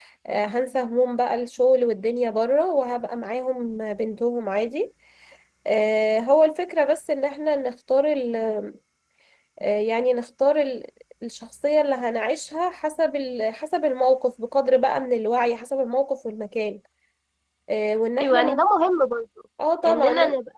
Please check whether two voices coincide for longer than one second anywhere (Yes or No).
No